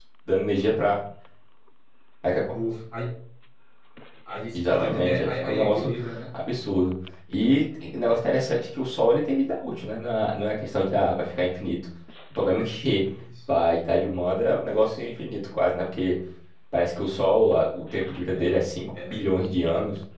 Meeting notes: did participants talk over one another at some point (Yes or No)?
Yes